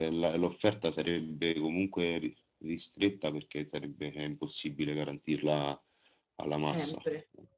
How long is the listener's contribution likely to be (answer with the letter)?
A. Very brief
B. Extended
A